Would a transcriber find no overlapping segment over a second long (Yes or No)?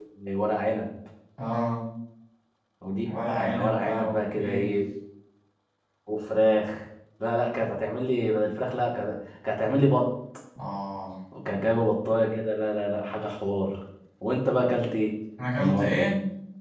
No